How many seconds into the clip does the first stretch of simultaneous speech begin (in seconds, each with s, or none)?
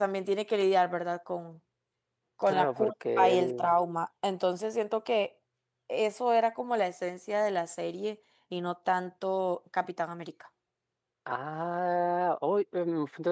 2.5 s